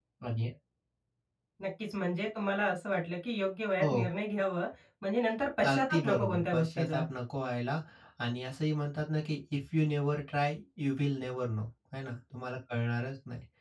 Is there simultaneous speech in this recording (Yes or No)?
Yes